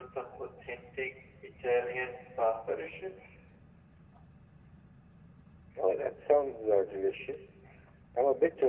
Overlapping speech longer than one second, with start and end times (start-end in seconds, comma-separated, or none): none